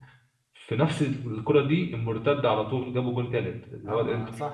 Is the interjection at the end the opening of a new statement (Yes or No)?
Yes